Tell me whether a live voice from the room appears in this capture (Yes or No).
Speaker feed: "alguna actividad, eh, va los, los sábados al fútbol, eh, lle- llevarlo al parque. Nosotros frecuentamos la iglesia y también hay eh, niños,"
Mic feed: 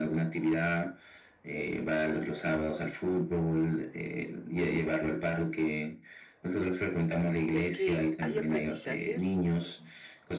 Yes